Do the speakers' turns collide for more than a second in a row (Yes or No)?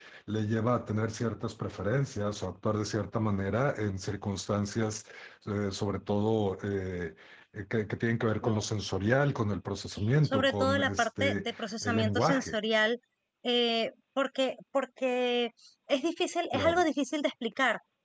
Yes